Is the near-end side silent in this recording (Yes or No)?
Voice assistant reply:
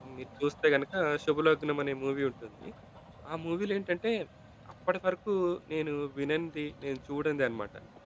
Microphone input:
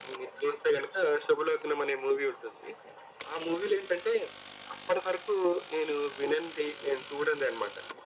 Yes